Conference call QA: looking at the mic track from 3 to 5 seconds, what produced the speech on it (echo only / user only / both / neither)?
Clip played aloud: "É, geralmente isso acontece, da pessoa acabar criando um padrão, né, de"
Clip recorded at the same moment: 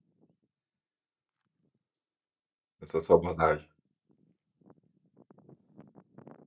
user only